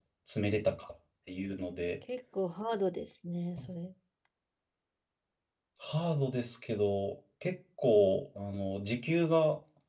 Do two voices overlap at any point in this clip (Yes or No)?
No